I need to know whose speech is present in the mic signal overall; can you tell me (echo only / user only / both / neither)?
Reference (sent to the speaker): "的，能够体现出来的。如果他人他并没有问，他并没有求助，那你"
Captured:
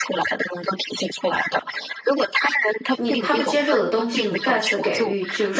both